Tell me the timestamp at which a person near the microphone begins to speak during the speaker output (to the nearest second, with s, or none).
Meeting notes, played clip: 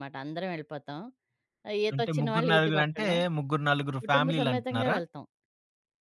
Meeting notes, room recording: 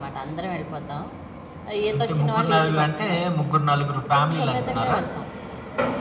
none